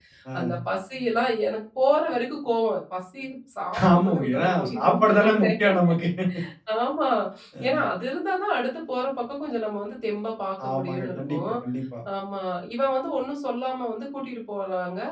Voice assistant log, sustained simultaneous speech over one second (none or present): present